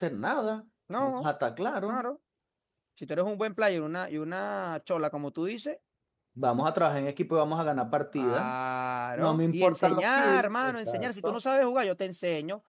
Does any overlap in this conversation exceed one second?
Yes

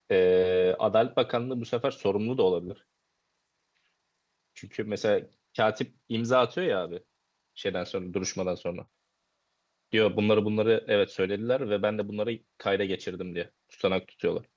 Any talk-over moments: No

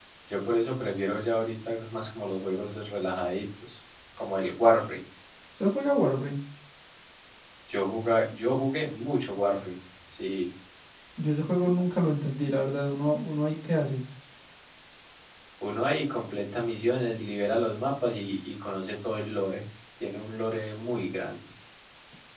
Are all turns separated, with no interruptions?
Yes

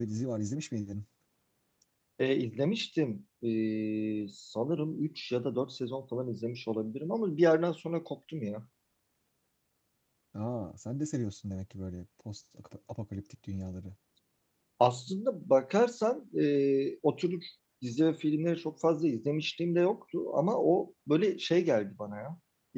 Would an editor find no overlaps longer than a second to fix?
Yes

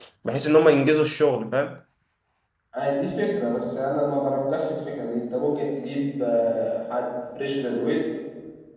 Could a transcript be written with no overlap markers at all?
Yes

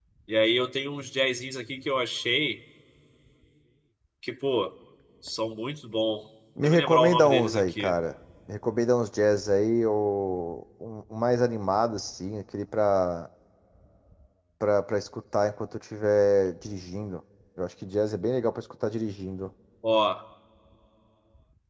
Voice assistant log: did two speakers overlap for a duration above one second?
Yes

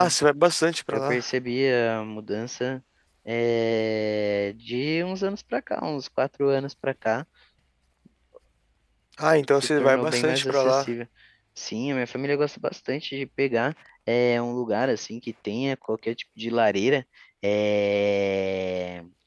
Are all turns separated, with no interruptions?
No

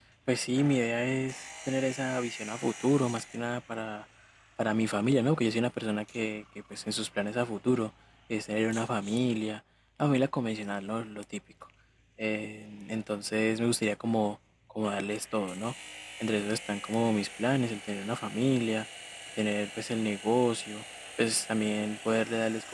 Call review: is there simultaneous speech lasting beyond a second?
No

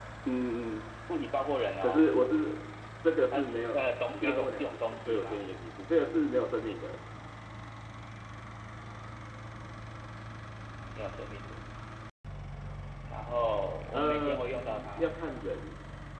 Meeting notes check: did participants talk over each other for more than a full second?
Yes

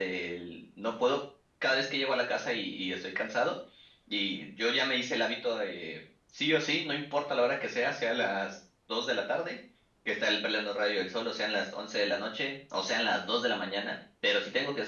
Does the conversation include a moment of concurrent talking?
No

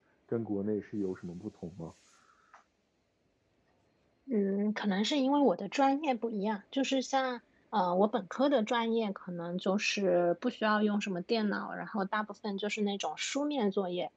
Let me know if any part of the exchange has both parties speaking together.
No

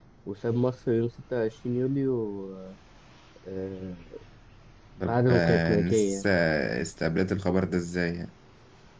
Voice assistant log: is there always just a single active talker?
No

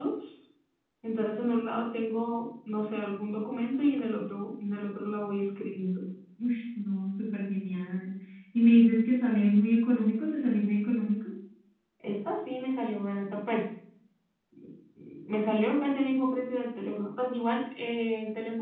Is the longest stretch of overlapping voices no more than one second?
Yes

